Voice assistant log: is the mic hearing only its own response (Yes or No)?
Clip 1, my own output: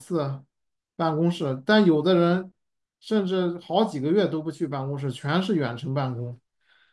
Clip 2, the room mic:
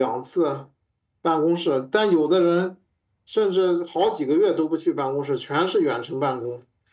Yes